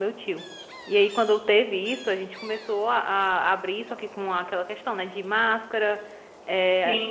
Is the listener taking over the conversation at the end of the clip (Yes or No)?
No